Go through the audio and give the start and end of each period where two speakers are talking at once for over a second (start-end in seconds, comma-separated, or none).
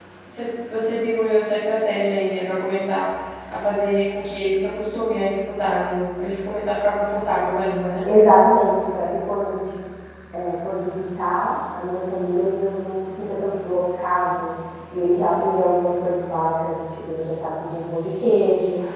none